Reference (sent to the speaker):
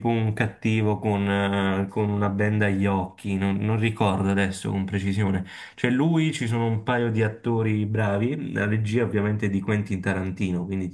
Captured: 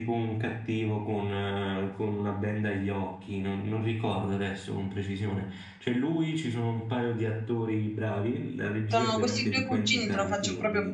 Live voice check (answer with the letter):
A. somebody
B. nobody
A